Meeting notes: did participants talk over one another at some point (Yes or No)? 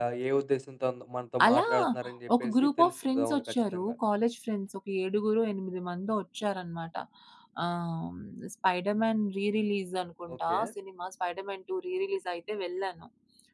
Yes